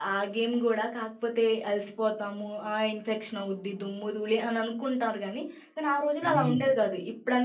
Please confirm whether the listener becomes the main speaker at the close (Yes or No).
No